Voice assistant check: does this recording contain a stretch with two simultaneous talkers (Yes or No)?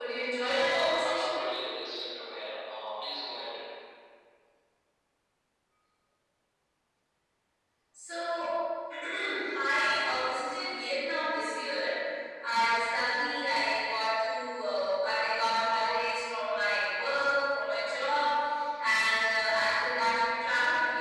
Yes